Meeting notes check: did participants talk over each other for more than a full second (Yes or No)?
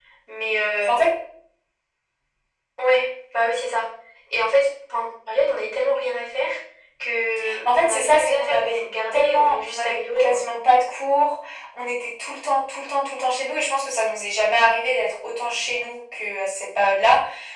Yes